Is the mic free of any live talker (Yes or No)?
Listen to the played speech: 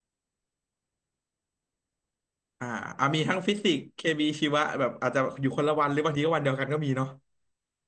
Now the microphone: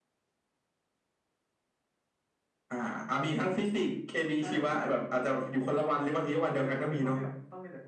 No